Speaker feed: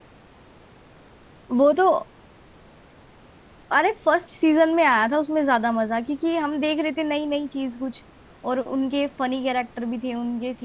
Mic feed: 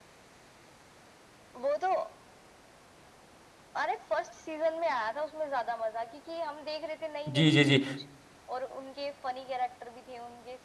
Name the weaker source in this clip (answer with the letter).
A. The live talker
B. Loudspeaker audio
B